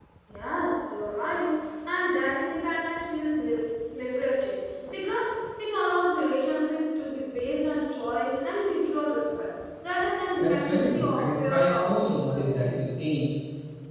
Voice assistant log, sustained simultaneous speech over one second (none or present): present